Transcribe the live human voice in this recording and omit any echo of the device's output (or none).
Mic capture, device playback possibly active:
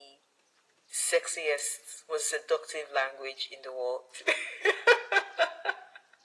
none